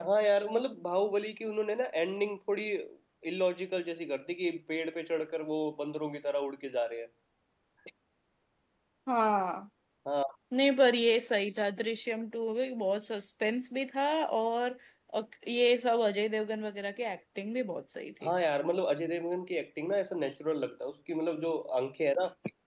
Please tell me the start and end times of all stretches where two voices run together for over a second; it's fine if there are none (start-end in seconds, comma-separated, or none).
none